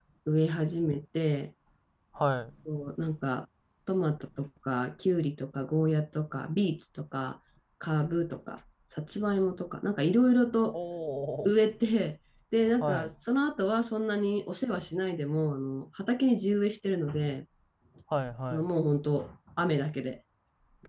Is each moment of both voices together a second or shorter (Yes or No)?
Yes